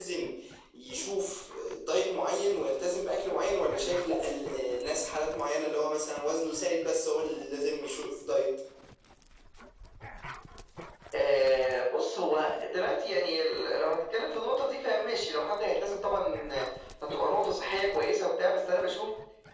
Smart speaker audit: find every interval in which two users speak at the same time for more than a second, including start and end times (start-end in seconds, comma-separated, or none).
none